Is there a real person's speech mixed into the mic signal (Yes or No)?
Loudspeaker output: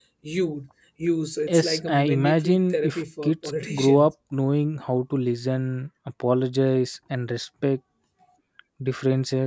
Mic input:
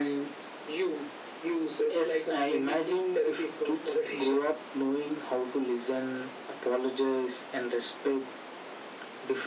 No